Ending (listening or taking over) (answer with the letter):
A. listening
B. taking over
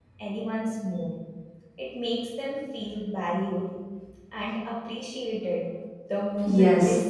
B